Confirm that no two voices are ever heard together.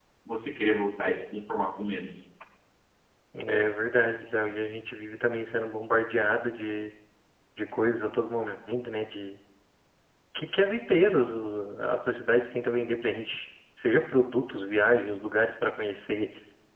Yes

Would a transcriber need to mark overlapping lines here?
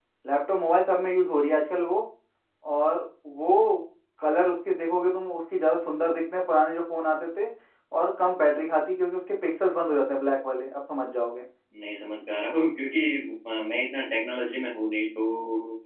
No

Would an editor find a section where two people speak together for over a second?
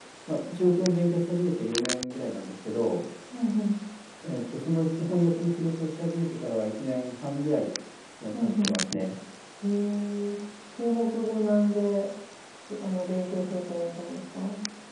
No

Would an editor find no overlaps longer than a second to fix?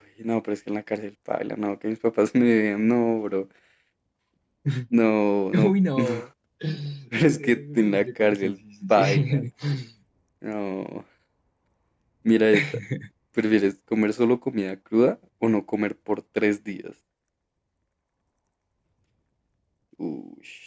No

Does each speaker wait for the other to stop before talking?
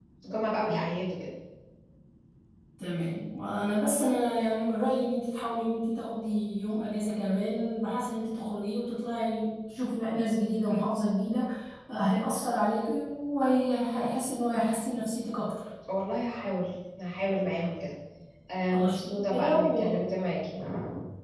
No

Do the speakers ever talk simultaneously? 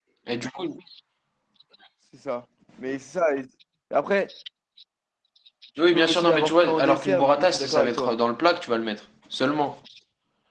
Yes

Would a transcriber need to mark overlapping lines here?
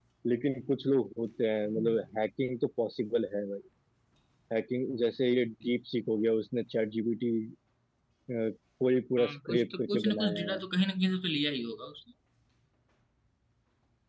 Yes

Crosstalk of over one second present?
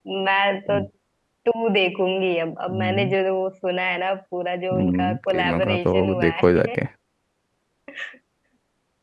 Yes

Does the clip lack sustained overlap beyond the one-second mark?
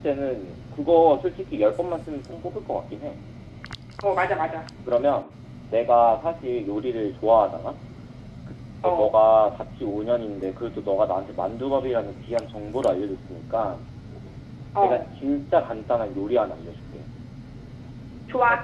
Yes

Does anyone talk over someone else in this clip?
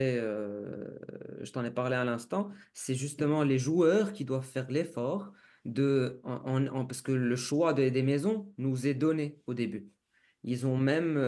No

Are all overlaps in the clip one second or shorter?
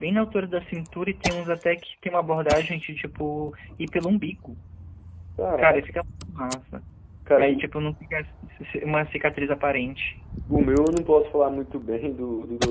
Yes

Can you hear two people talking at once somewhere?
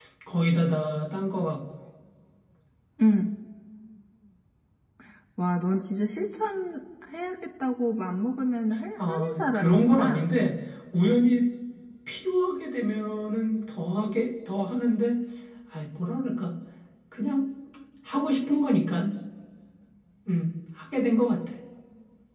Yes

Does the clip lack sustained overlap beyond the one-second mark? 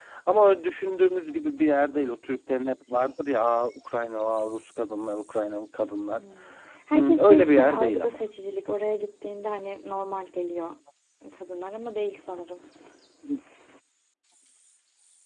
No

